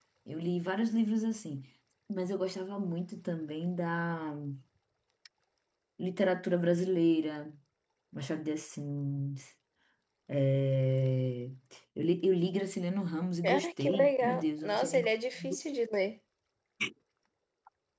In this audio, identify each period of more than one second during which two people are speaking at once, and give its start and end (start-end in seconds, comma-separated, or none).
13.4-15.1